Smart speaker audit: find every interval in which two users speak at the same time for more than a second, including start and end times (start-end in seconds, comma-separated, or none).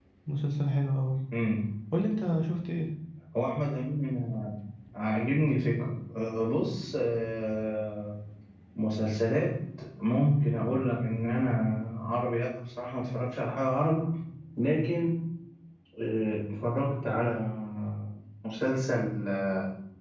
none